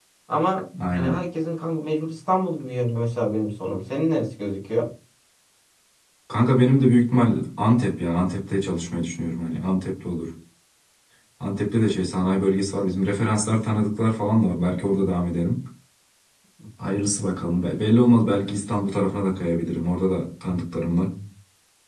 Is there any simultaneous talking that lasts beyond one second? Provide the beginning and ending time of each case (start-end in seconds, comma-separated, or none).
none